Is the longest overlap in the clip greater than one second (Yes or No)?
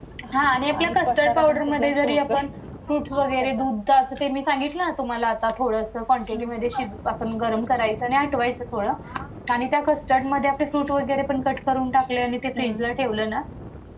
Yes